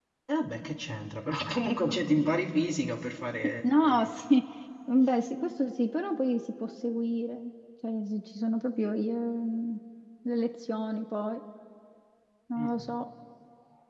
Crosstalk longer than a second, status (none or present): none